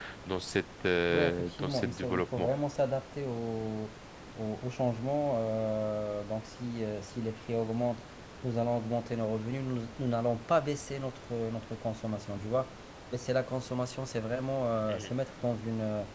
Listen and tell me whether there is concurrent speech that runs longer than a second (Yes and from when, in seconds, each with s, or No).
Yes, from 1.1 s